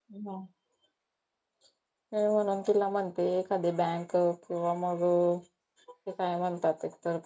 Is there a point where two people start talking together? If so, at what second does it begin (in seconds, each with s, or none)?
none